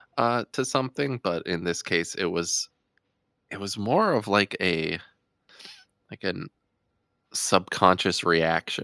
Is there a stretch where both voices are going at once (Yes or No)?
No